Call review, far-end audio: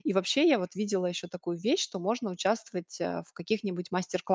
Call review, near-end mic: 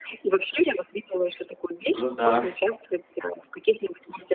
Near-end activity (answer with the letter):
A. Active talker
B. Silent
A